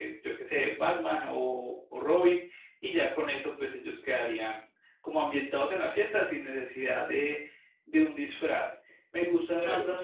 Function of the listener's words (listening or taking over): listening